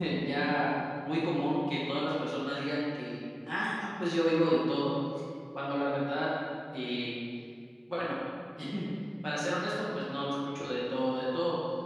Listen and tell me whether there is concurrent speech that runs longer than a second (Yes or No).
No